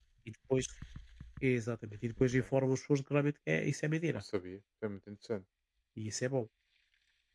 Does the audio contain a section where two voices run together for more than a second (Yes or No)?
No